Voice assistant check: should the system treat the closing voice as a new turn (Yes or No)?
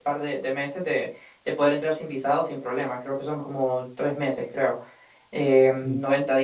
No